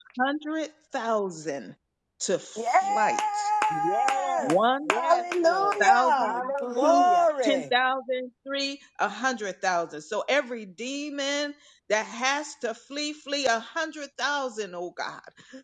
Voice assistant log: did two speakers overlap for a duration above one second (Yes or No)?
Yes